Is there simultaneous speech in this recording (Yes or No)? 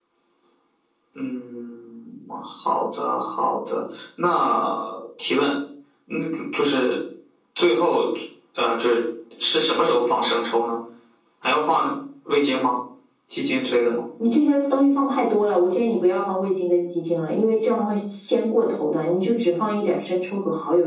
No